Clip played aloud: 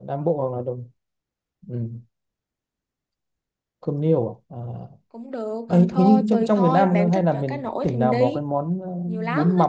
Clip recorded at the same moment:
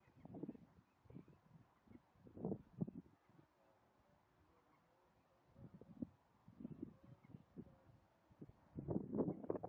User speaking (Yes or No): No